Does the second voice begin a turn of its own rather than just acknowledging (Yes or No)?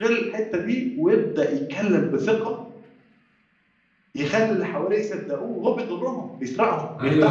Yes